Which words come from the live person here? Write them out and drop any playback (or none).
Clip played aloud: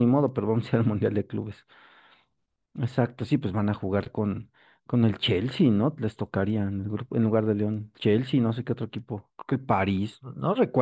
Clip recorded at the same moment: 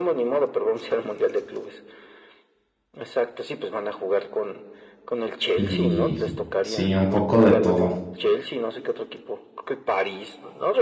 y sí, un poco de todo.